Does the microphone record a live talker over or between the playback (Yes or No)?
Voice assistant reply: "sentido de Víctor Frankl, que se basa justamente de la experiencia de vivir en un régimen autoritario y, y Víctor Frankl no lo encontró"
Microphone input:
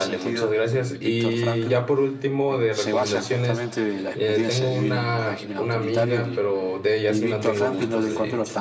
Yes